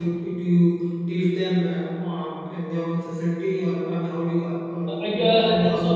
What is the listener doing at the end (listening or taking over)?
taking over